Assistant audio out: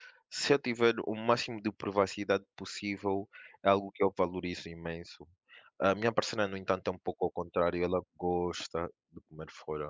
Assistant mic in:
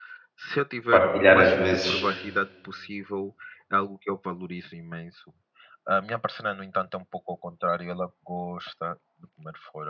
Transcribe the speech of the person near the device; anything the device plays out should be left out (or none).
partilhar às vezes